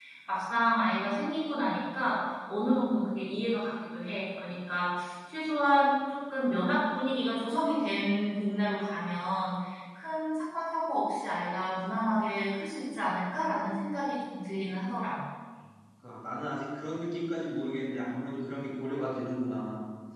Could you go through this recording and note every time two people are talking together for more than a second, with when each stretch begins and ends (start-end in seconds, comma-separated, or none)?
none